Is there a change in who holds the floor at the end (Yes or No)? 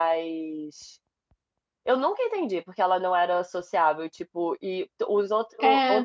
No